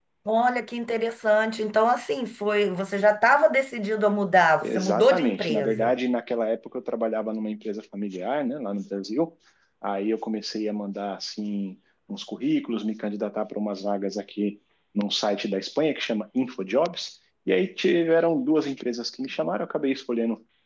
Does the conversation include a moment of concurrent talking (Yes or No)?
Yes